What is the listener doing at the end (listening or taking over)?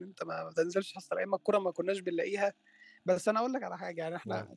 listening